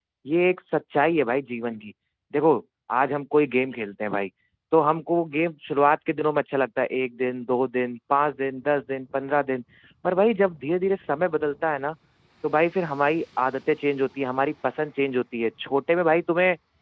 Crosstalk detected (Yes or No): No